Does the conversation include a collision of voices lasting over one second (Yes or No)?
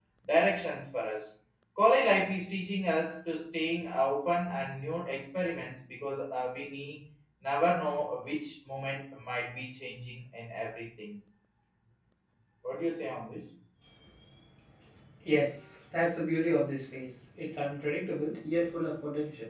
No